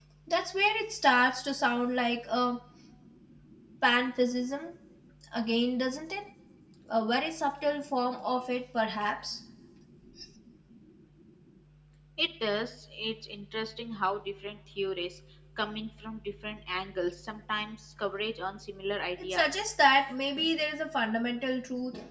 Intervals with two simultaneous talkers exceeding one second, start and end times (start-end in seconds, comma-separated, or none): none